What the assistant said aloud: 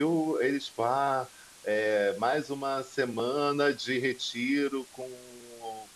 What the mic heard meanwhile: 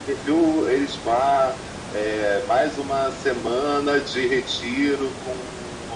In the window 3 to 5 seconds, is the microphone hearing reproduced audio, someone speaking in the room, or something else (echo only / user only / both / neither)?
echo only